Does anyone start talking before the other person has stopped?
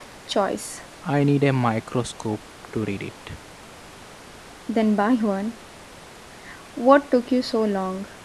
No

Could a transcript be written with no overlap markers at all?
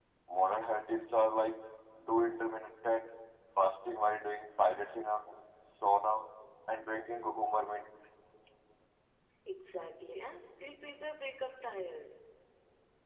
Yes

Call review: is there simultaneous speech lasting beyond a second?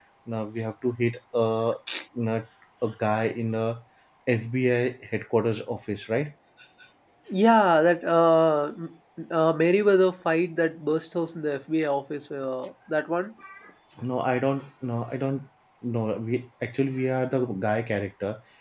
No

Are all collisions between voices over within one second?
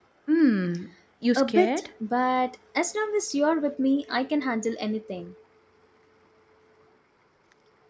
Yes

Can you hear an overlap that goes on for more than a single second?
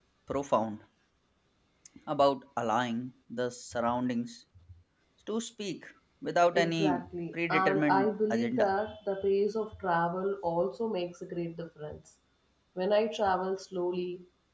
Yes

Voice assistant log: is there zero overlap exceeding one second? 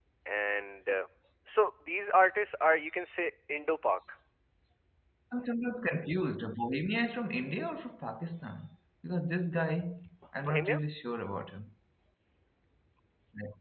Yes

